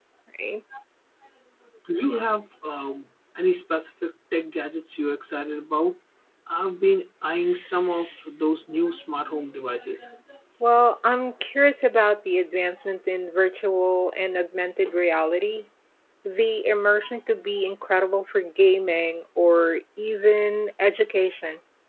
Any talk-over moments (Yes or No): No